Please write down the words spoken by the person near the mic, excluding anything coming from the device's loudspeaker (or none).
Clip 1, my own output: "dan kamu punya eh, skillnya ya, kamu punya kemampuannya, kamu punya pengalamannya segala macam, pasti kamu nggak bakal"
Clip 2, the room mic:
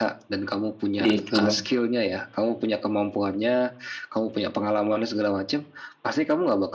Gitu bang.